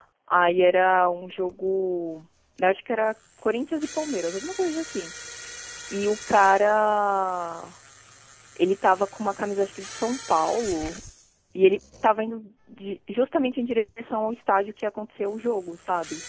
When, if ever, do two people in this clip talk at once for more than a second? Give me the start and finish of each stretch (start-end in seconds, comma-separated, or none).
none